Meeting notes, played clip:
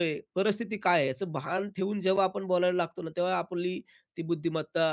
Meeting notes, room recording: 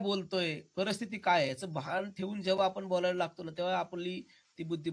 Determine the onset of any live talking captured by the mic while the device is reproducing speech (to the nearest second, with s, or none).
none